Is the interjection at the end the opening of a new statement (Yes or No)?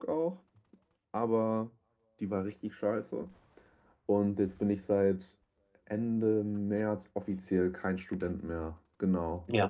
No